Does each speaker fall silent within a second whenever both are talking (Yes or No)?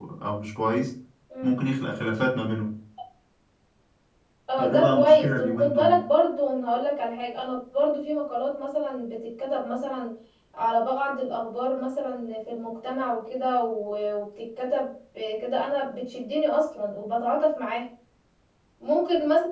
No